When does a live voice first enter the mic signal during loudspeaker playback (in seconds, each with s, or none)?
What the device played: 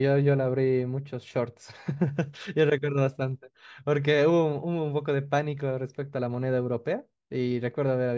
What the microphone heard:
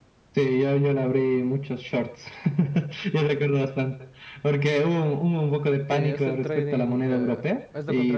5.9 s